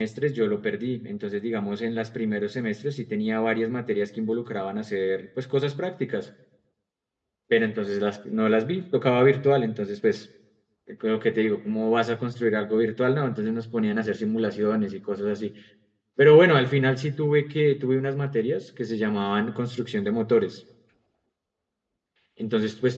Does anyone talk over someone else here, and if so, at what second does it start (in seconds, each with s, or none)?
none